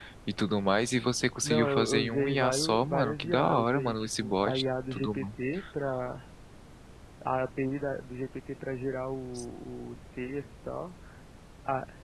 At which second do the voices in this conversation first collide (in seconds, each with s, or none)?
1.4 s